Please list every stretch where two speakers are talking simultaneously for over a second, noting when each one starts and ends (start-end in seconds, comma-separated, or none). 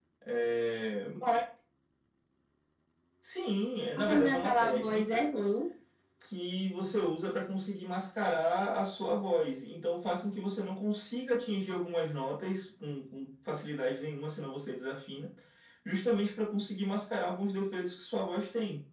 4.0-5.2